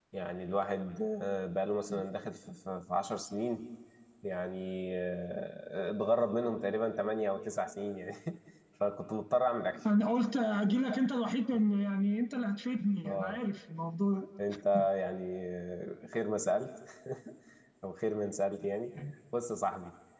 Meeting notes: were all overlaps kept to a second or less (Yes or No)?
Yes